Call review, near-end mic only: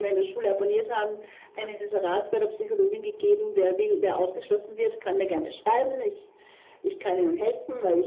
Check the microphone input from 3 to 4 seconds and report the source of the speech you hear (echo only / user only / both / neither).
echo only